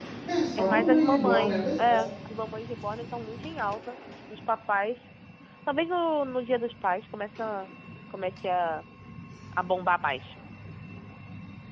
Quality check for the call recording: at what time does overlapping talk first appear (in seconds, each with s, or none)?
0.6 s